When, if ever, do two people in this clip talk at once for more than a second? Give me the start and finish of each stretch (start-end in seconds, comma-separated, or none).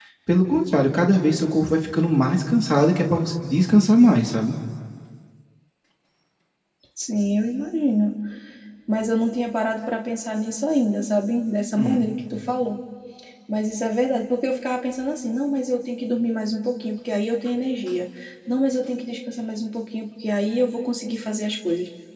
none